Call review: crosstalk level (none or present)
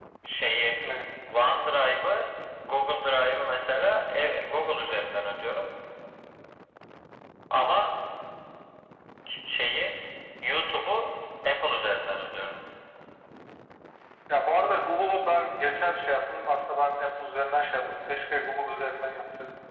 none